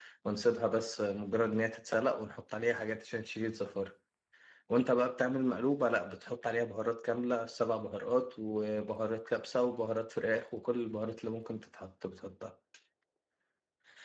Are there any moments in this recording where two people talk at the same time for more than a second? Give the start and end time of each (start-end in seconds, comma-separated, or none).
none